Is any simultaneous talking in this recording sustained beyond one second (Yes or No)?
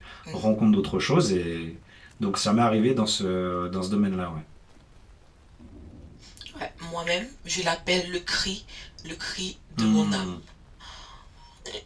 No